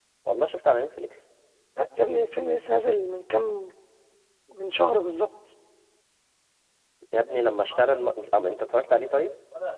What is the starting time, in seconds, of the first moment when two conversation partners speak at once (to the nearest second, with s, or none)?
none